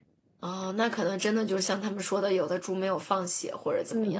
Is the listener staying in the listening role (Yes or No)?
No